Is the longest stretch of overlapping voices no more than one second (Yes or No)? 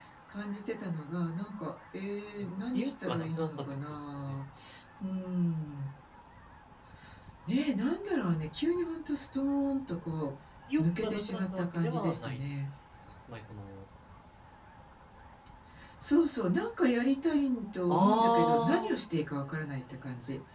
No